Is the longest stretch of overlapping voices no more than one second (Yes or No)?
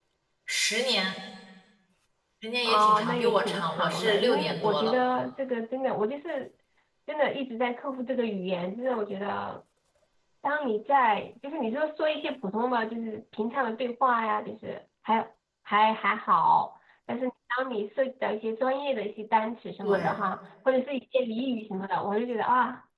No